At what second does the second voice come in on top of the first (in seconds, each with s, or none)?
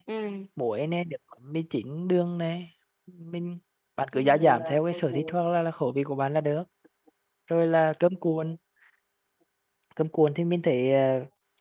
4.1 s